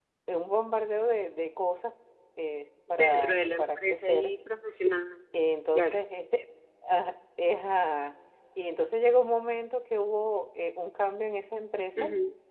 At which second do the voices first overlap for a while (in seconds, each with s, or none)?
2.9 s